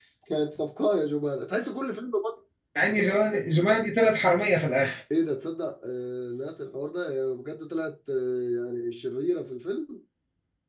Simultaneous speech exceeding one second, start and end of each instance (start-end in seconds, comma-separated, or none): none